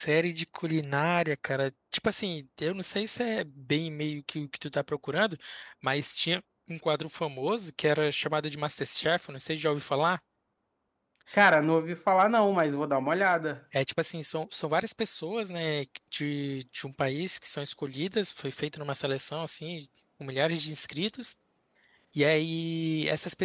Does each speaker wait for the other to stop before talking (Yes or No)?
Yes